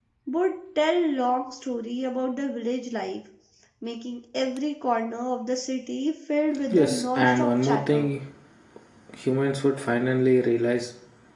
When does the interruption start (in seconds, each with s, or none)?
6.7 s